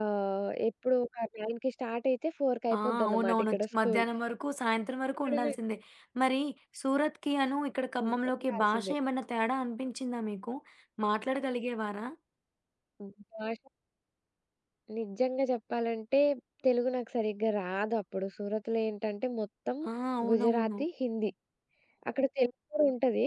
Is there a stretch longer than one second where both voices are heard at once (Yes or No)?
Yes